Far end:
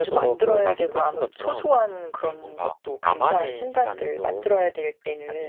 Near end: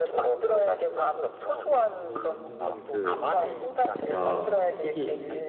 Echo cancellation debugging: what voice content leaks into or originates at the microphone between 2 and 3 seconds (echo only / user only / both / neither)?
both